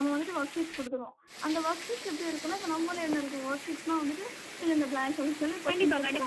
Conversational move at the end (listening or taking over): taking over